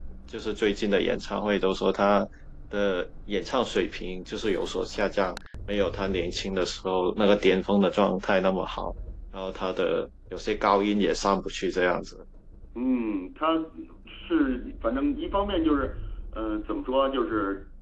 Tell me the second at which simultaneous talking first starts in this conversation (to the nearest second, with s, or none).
none